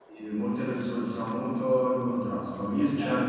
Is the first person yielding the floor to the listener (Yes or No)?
No